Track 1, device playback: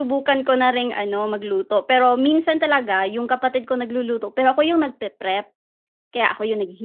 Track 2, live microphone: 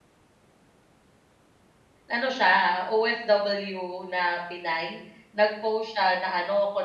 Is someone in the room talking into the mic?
Yes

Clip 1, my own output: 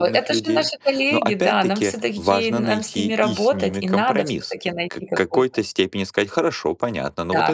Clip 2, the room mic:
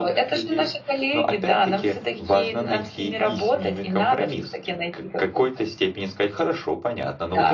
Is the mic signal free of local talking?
Yes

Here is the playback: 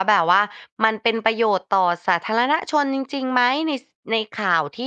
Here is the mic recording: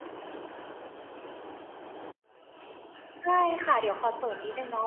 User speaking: Yes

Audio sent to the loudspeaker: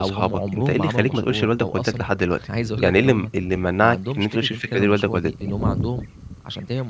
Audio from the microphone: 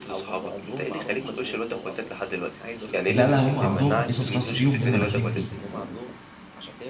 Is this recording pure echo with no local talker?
No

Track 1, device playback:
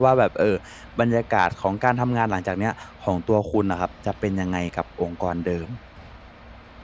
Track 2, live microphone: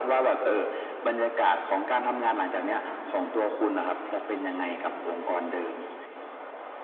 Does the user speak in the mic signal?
No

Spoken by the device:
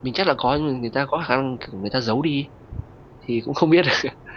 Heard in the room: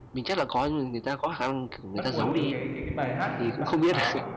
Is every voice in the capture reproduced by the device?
No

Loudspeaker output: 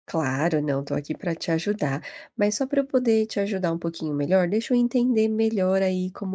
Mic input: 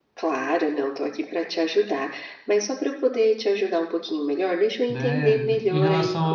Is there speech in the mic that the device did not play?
Yes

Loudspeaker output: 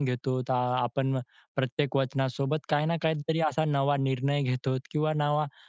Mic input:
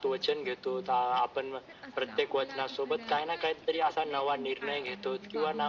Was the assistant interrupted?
Yes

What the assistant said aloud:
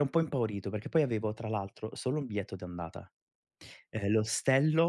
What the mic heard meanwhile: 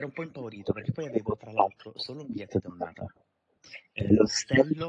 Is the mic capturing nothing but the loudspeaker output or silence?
Yes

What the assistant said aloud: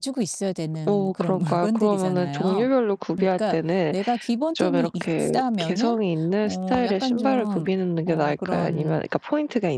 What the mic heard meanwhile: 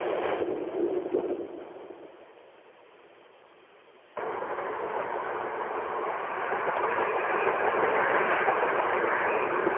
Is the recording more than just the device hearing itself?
No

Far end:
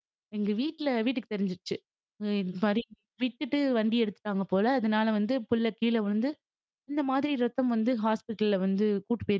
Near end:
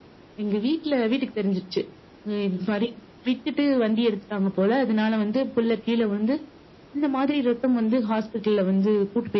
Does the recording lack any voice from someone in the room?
Yes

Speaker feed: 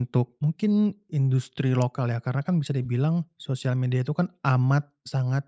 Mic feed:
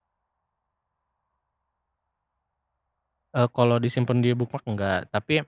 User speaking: Yes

